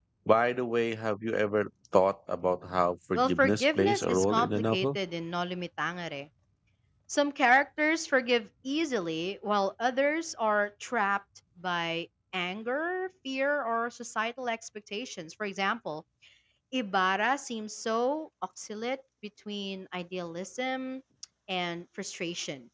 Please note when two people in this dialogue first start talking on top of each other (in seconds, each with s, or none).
3.1 s